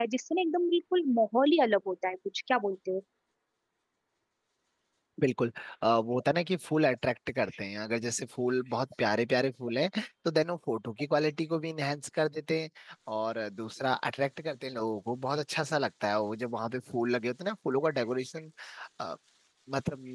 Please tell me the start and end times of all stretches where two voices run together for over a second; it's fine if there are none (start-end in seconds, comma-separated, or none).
none